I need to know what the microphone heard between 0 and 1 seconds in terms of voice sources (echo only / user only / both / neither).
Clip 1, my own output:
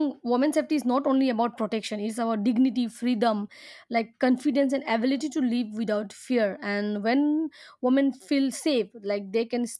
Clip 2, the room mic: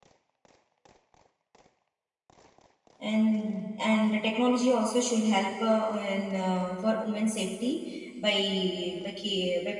neither